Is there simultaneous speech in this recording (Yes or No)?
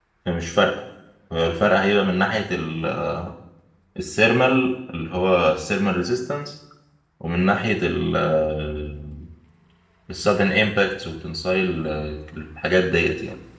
No